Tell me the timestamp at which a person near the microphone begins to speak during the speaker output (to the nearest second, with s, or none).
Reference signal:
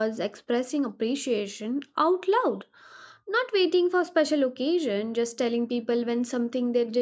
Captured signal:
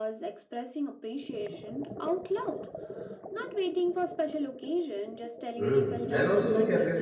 6 s